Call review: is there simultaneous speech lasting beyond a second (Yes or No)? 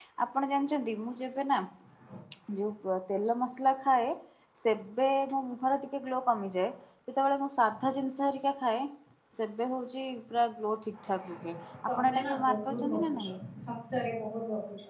Yes